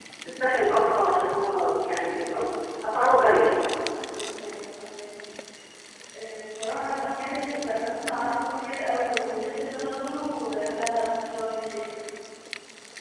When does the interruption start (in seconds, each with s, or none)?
none